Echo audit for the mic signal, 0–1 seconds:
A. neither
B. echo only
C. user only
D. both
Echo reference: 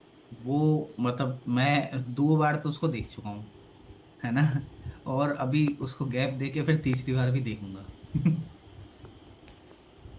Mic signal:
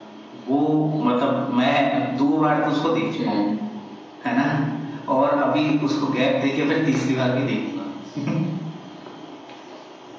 B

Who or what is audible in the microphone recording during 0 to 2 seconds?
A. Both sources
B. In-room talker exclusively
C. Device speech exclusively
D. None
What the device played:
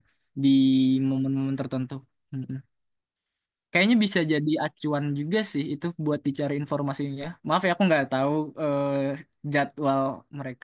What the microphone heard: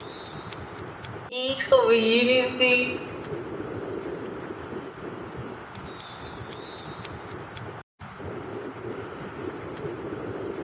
B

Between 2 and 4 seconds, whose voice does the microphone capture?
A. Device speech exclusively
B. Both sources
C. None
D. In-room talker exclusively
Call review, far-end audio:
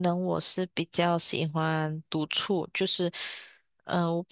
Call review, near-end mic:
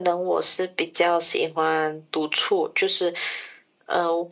A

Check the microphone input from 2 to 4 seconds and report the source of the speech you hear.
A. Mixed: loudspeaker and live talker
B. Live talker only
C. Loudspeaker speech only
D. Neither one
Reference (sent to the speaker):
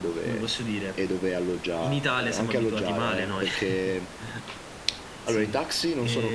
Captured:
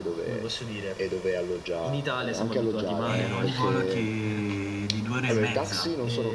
A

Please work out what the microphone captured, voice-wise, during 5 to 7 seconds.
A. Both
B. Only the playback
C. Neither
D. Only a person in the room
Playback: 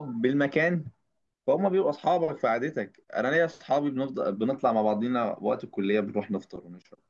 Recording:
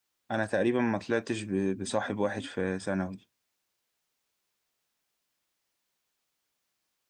C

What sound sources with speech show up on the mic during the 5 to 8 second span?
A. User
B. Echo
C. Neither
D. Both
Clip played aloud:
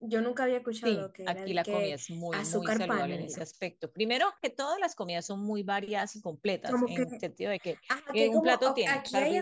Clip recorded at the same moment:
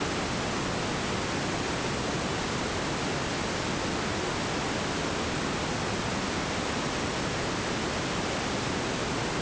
C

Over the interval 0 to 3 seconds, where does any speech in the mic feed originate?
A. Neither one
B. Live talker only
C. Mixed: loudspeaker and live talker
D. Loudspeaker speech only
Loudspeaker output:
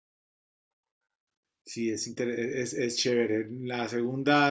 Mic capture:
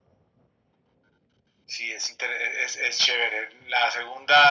D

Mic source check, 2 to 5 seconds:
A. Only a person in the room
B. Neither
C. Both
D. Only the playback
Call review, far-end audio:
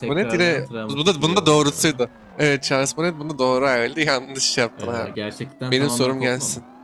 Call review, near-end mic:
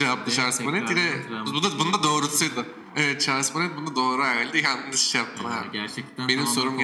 D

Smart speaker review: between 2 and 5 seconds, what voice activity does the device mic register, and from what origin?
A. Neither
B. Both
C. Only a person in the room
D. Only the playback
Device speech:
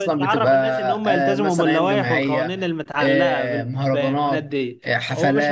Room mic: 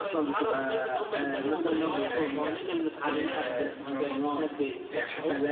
D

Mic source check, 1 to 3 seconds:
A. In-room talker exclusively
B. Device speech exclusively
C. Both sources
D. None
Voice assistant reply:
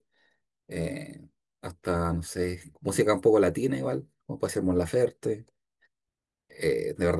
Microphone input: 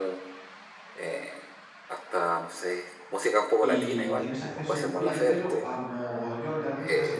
B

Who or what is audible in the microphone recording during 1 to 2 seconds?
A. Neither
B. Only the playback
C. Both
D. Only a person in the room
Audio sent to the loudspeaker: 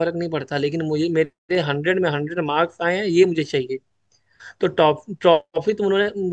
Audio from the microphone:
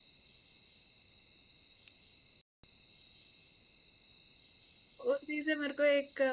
A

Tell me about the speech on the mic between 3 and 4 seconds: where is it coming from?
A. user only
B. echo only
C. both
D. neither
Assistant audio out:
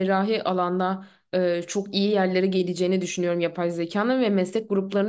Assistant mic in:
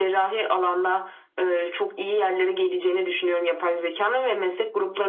B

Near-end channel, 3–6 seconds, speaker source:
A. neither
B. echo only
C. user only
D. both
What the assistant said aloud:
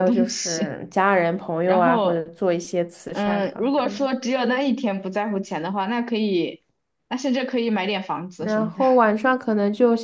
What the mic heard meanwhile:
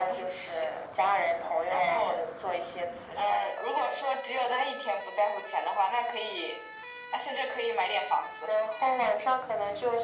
B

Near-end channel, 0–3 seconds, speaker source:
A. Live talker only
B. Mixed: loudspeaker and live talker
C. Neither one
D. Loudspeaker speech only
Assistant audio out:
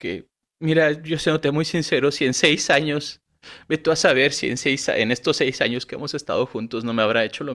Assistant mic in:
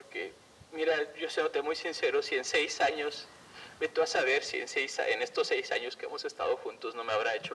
D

